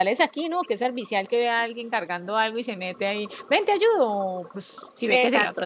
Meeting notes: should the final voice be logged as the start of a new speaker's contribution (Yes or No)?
Yes